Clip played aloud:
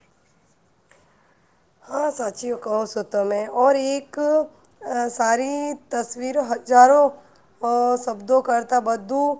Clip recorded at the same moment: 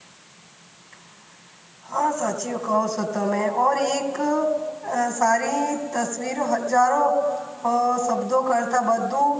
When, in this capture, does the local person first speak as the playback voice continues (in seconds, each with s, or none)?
none